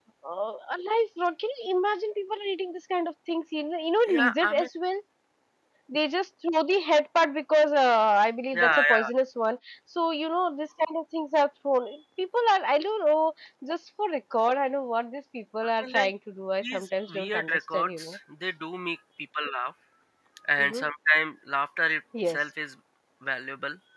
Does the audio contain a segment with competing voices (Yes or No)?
Yes